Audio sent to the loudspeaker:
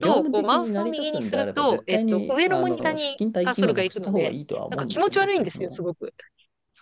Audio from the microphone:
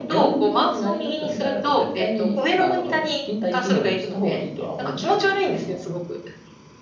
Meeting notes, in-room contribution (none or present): none